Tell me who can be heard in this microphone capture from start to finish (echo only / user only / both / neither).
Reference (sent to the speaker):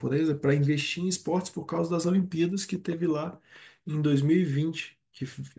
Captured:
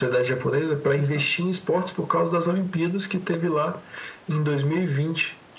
both